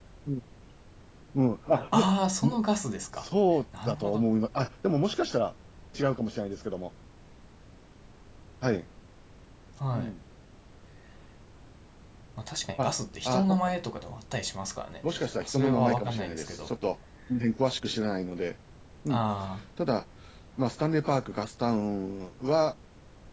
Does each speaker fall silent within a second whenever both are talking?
No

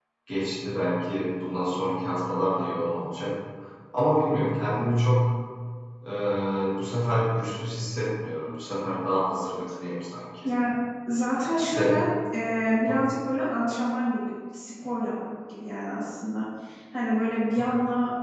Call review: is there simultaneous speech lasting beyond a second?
No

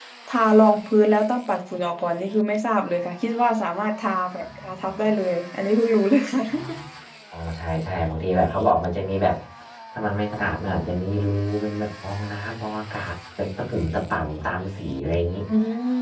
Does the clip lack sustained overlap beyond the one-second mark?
Yes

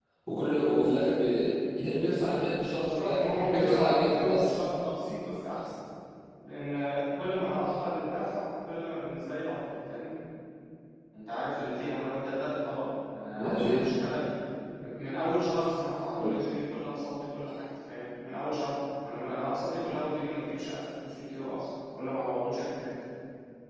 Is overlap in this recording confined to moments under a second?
No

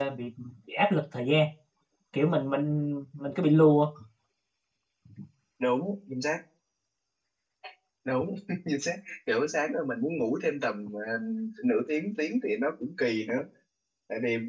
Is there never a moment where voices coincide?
Yes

